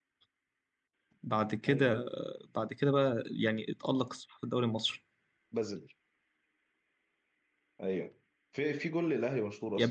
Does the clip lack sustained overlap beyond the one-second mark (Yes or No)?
Yes